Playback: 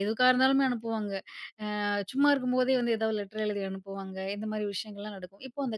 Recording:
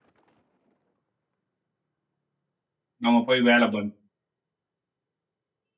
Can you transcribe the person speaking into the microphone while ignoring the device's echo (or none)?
நம்ம போய் வேல பண்